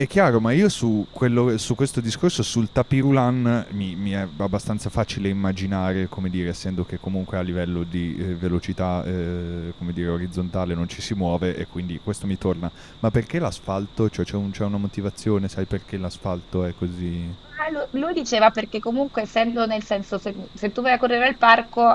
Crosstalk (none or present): none